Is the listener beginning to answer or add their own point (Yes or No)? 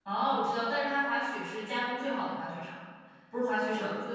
No